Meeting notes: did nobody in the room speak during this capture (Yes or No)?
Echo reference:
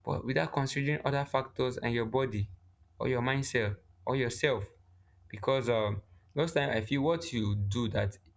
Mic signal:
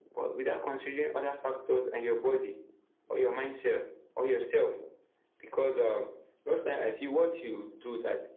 Yes